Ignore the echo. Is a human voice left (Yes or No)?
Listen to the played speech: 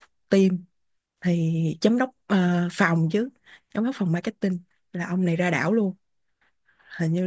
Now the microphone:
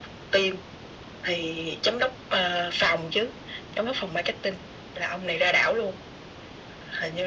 No